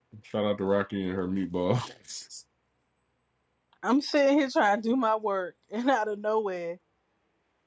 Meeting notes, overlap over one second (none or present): none